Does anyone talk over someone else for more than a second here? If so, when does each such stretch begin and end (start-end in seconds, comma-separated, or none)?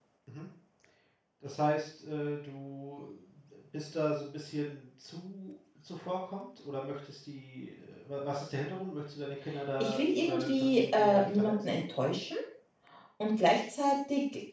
9.8-11.7